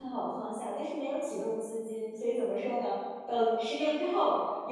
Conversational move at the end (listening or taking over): listening